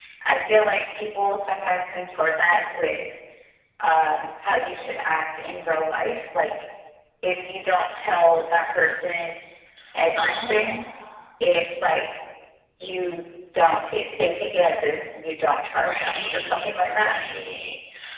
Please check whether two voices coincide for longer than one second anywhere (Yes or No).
Yes